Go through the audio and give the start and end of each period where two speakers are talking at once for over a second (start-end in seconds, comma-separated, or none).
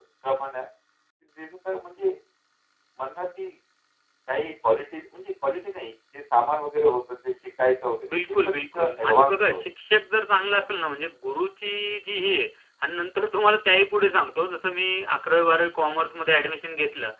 8.1-9.6